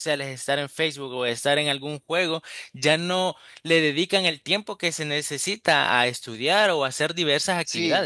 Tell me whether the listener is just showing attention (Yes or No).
No